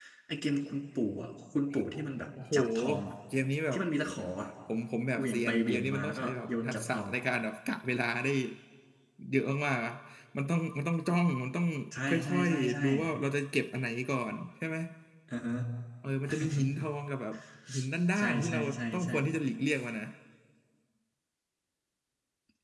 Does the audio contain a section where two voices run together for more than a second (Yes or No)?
Yes